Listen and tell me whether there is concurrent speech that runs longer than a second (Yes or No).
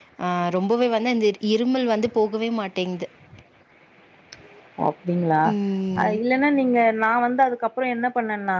No